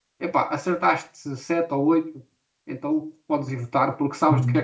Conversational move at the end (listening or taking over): taking over